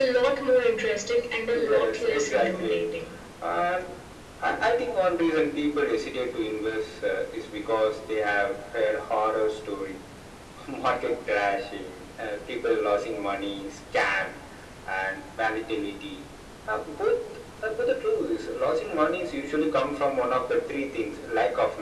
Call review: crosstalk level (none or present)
present